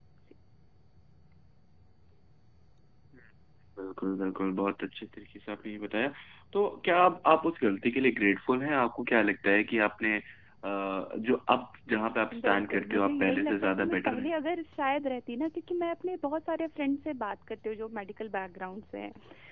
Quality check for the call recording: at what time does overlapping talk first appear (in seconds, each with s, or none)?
12.3 s